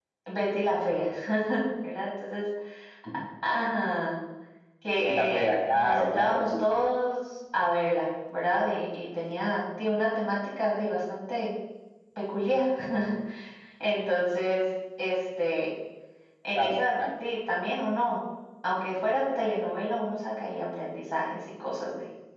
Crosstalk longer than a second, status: present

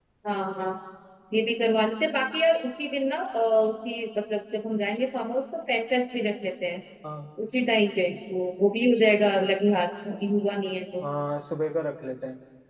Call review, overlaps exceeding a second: none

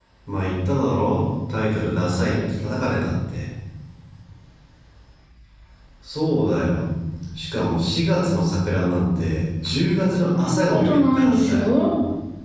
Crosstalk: present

